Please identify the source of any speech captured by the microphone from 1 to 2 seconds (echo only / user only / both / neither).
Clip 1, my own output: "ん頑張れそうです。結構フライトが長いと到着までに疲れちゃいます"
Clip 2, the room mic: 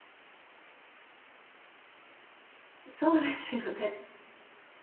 neither